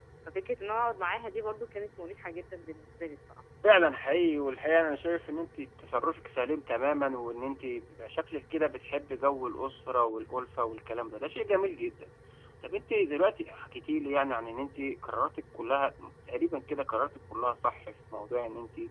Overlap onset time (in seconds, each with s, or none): none